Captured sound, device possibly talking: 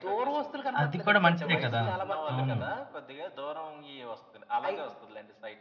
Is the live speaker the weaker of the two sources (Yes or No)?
No